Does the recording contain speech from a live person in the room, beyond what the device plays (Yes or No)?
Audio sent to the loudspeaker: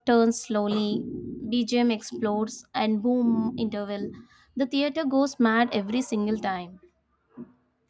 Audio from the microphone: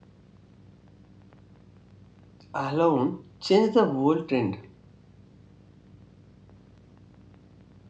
Yes